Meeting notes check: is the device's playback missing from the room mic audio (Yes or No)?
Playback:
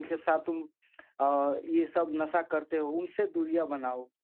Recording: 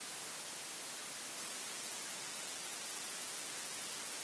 Yes